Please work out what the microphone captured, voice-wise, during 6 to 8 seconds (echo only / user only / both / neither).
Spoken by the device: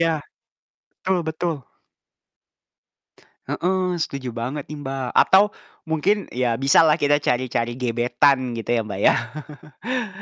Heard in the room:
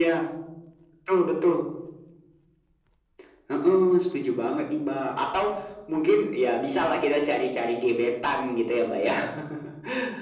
echo only